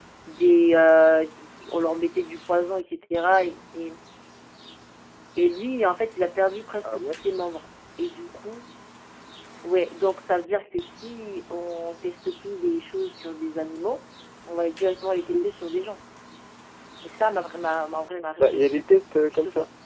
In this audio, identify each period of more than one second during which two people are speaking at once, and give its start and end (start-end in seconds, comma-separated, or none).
none